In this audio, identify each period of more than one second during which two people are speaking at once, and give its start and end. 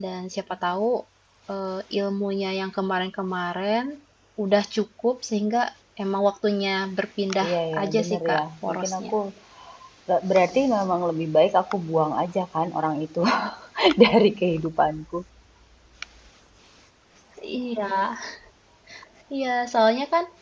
7.5-9.1

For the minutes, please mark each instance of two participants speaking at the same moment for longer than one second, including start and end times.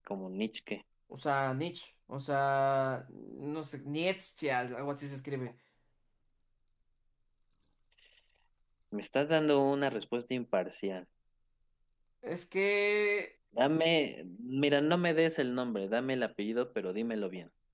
none

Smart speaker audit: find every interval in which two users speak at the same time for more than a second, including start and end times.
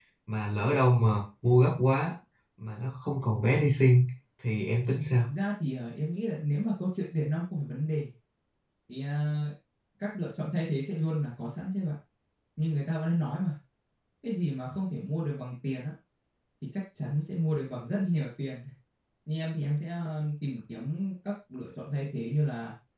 none

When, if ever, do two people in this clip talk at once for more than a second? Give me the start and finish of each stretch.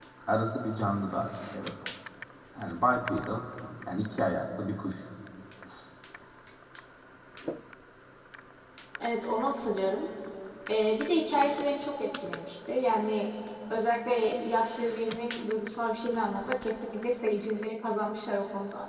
none

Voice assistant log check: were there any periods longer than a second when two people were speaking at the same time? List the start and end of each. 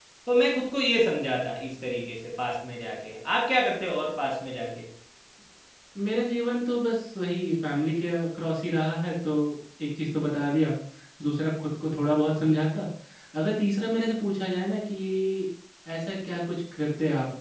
none

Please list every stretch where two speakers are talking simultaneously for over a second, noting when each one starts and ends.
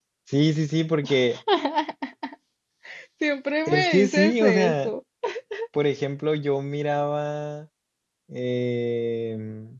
3.7-4.9

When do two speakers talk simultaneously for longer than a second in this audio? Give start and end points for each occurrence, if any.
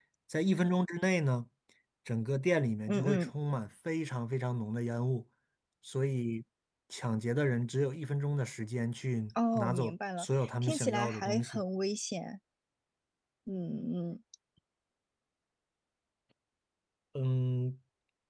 9.6-11.6

